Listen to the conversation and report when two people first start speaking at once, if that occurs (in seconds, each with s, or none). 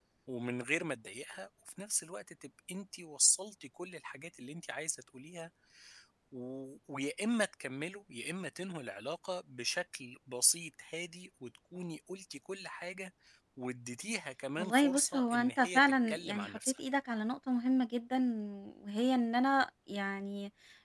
14.6 s